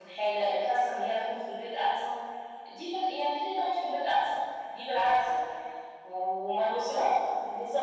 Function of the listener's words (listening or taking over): listening